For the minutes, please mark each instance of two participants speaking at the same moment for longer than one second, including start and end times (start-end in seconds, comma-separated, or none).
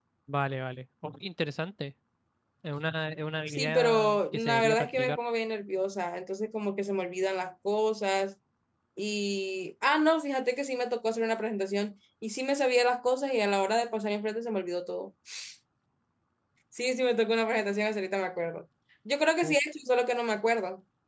3.5-5.2